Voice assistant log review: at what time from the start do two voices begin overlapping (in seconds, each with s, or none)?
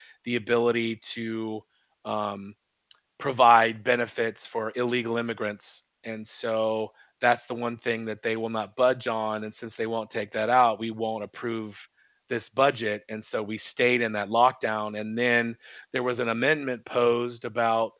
none